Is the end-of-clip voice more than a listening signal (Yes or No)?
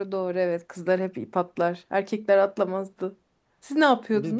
Yes